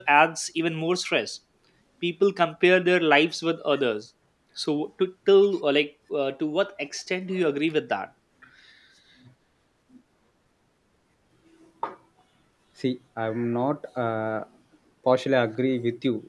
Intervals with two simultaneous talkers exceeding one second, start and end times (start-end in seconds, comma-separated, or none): none